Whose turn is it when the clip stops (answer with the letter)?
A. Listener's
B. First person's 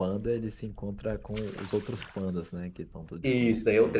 A